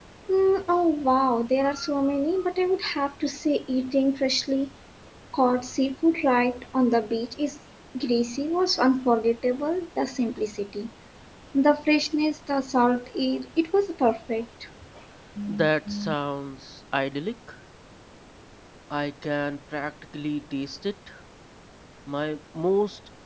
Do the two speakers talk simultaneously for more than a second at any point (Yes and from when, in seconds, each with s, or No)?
No